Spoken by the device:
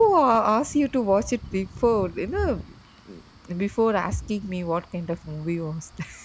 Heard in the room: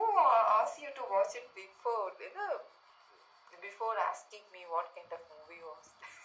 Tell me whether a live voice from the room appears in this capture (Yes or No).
No